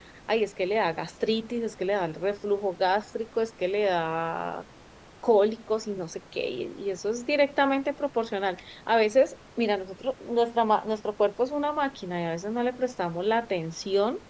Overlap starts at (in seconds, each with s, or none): none